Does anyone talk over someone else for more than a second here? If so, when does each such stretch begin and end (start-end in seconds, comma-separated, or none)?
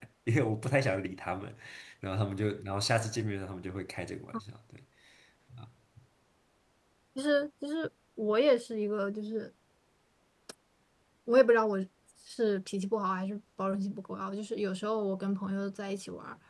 none